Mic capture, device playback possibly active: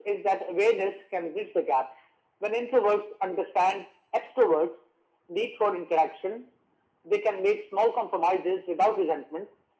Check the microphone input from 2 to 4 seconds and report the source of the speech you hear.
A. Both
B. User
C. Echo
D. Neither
C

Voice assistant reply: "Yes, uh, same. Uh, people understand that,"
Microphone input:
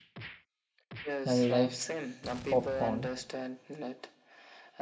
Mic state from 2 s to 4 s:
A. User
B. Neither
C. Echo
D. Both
D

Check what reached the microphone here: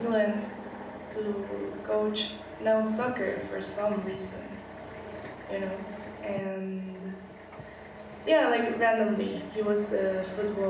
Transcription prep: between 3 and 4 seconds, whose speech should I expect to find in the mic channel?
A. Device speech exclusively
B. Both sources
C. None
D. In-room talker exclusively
D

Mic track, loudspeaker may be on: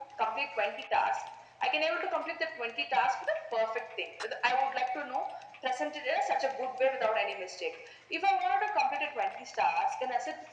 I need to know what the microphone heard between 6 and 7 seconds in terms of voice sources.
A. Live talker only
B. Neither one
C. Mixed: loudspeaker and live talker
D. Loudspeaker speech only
D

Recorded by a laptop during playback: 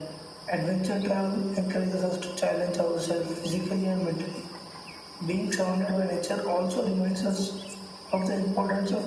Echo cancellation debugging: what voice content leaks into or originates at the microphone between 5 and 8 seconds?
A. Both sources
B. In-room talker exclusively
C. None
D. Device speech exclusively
D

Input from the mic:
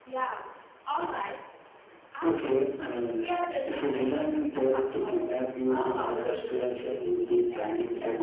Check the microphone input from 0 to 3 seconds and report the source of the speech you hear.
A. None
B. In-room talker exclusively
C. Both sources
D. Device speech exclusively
D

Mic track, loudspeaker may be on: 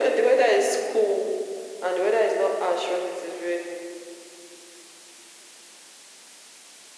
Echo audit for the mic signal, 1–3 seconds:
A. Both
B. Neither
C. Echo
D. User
C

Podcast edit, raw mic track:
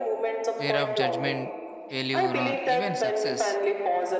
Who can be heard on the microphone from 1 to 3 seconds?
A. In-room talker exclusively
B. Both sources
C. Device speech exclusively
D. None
B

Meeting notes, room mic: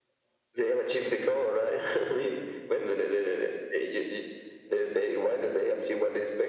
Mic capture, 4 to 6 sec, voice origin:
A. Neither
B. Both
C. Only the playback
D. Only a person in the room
C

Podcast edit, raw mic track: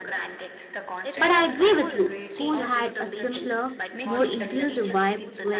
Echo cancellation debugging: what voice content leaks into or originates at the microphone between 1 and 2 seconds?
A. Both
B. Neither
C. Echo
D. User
A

